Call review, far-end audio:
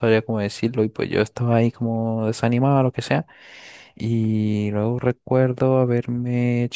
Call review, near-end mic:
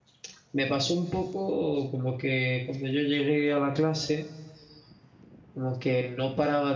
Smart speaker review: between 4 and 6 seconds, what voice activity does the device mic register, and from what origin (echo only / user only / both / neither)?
user only